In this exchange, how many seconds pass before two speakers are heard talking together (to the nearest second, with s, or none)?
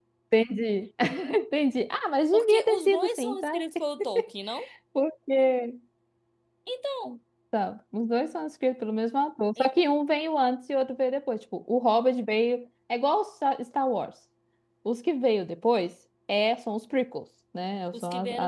2 s